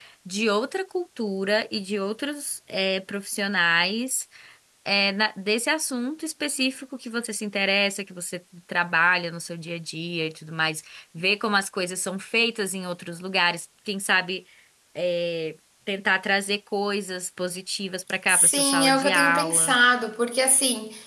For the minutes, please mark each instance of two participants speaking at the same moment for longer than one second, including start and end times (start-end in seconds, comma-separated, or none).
18.3-19.8